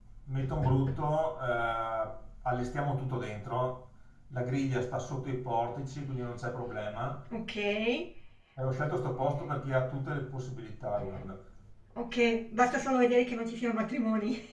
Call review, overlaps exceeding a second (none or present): none